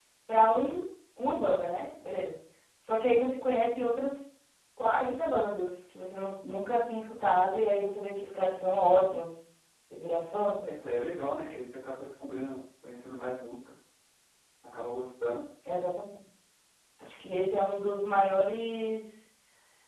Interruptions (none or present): none